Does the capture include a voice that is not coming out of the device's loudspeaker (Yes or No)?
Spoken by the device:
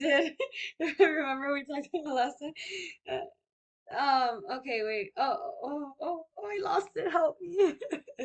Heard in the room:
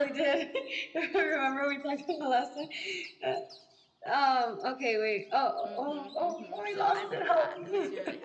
Yes